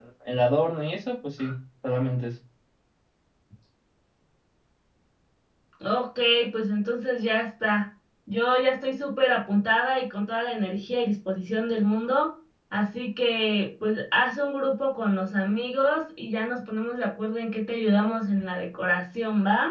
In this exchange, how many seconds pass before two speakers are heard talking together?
none

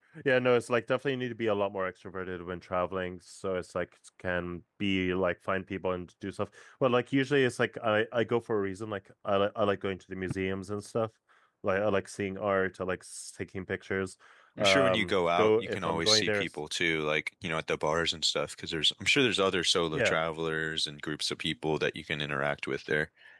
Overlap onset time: 14.6 s

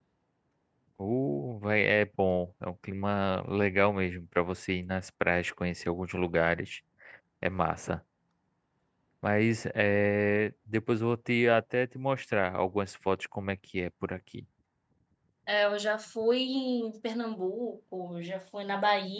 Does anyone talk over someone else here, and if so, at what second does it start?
none

